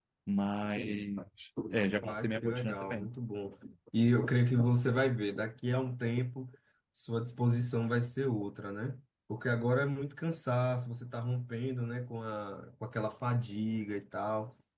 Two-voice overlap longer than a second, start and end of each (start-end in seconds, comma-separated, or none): 1.8-3.1